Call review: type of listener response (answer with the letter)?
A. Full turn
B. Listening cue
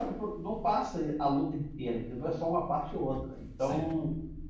B